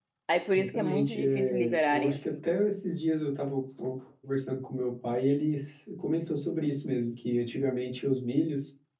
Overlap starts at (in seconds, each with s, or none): 0.5 s